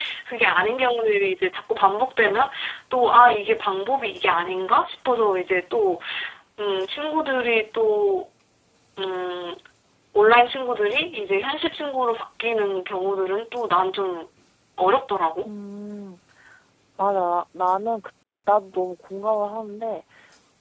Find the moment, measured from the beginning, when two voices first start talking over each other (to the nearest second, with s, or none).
none